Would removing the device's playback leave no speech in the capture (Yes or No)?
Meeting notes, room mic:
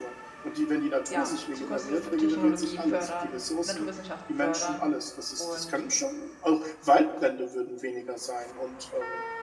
No